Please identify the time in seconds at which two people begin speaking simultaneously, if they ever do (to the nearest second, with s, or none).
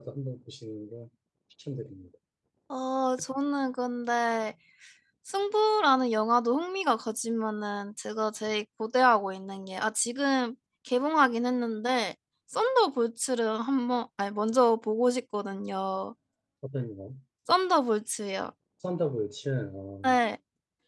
none